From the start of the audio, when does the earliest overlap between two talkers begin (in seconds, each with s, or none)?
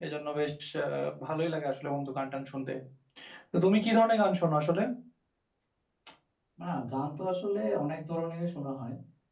none